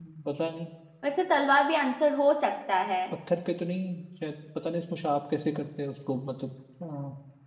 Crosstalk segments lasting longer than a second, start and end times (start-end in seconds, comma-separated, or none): none